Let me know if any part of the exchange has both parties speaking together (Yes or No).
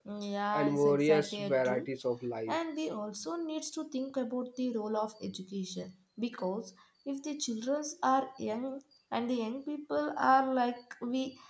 Yes